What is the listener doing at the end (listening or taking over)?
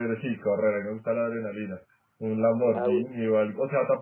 listening